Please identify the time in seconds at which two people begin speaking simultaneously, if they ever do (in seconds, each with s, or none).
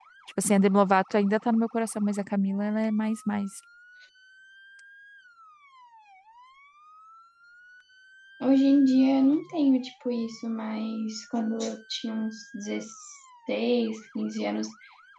none